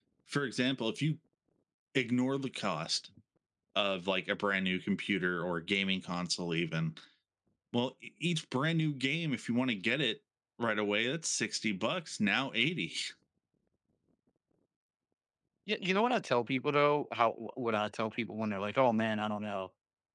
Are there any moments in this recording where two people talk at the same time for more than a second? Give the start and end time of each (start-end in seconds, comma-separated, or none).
none